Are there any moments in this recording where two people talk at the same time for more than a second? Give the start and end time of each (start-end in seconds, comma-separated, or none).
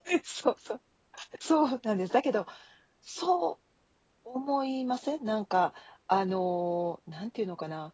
none